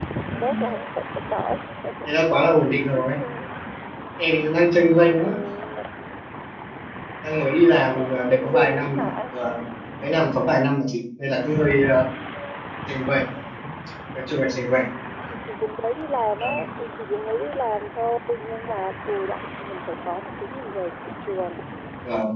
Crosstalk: present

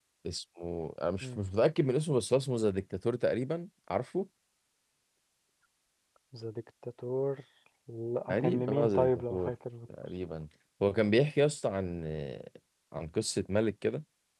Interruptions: present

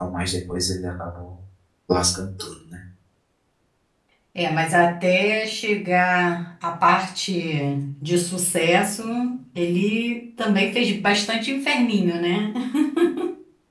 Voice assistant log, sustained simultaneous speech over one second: none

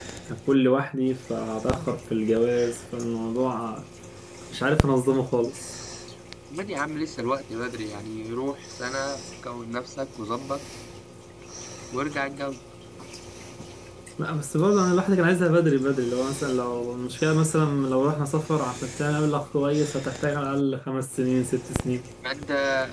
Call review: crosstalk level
none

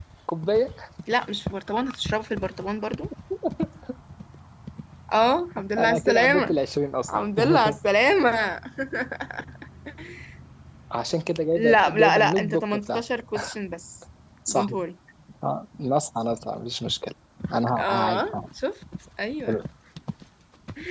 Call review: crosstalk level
present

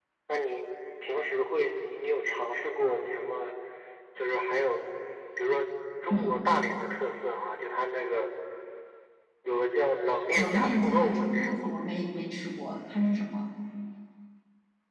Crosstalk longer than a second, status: present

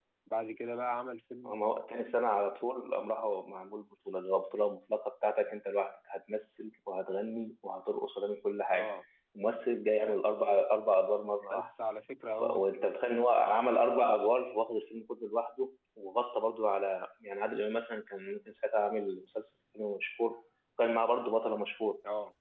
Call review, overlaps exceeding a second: none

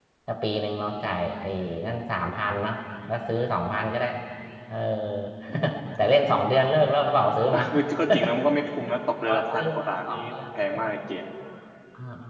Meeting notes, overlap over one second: present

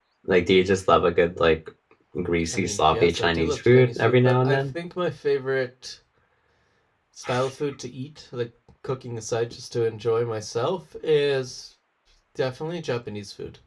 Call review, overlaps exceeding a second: present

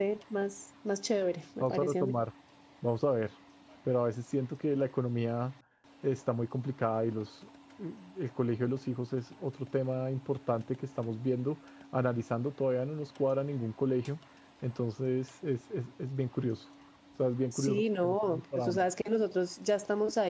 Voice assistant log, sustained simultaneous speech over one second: present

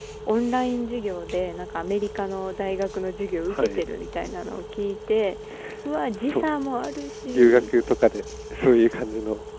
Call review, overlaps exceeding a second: none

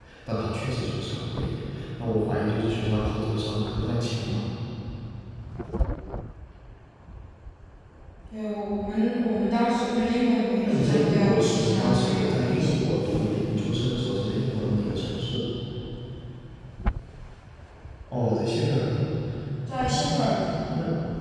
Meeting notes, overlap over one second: present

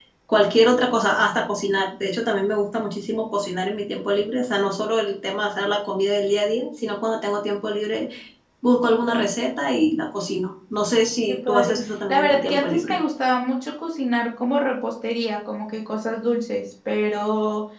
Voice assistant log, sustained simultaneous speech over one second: present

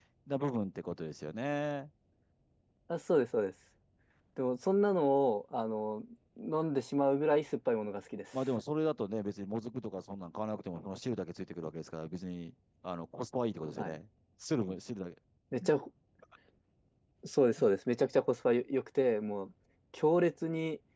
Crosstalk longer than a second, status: none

